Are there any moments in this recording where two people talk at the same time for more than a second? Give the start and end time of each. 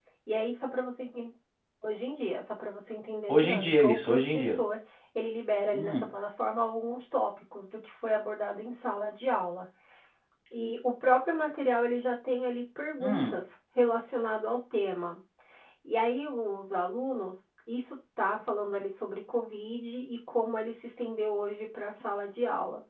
3.3-4.6

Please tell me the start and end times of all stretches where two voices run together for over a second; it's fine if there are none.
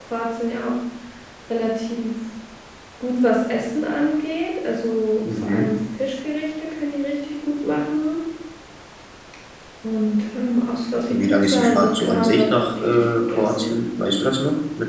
11.1-13.8

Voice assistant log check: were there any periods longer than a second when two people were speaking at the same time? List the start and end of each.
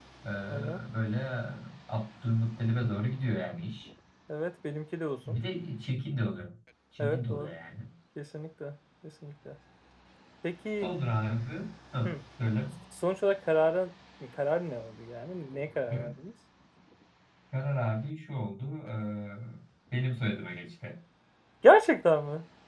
none

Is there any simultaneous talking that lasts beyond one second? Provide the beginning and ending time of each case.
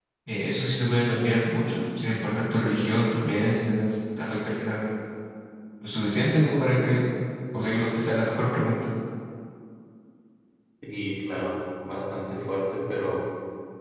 none

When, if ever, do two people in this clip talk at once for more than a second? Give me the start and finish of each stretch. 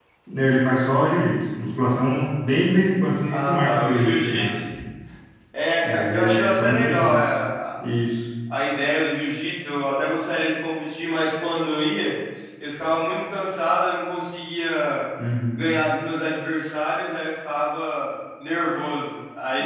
3.3-4.5, 5.8-7.3

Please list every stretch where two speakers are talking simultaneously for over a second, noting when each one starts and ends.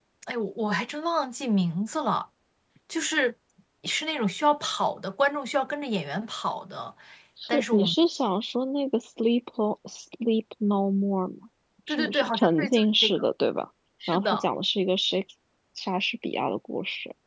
11.9-13.2

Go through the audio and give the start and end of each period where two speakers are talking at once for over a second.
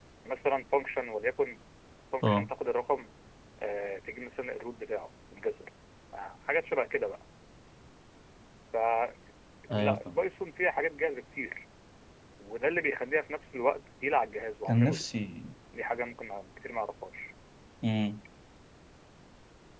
none

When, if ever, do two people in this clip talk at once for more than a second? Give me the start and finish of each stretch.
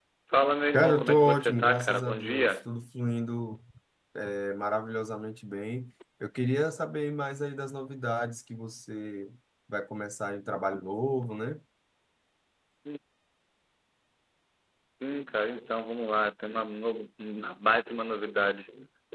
0.7-2.7

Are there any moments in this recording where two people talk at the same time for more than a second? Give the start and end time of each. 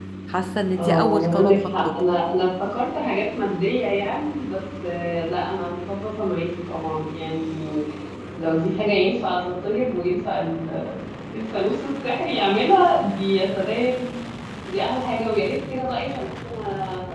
0.8-2.0

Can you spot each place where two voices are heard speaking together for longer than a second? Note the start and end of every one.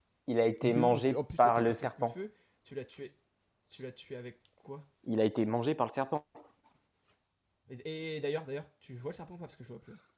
0.6-2.2

